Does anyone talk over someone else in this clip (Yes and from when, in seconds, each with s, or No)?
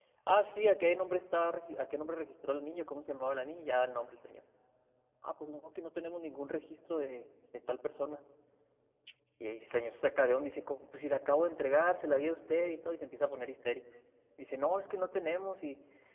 No